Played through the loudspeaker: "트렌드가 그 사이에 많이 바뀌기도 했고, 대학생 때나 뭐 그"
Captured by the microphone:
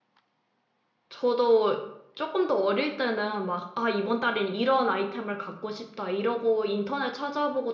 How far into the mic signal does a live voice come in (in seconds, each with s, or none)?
1.1 s